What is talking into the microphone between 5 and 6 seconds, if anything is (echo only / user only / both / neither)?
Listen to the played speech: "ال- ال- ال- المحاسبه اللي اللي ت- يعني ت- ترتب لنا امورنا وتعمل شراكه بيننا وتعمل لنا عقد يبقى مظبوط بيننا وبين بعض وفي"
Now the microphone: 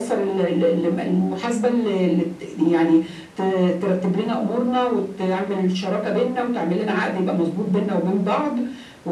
echo only